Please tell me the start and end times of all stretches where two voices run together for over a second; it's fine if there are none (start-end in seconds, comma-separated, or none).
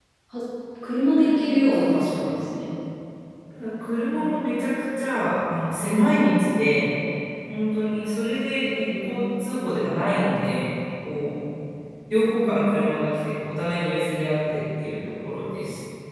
1.2-2.4